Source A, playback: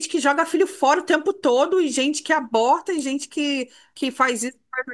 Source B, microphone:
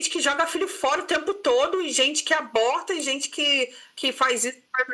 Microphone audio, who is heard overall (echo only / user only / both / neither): echo only